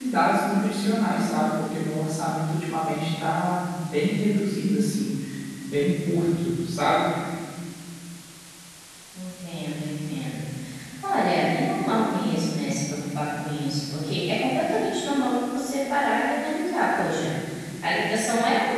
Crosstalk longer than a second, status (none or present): none